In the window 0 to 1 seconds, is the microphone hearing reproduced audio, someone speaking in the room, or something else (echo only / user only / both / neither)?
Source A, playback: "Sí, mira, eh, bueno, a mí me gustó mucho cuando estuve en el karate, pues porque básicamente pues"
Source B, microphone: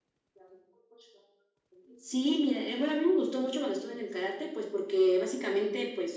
neither